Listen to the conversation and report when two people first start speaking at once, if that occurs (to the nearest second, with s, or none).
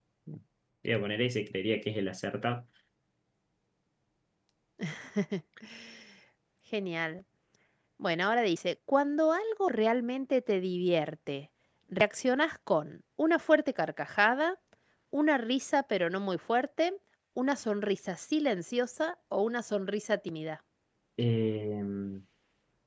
none